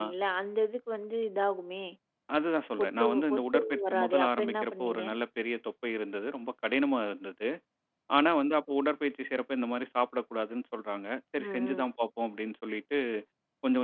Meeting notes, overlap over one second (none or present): present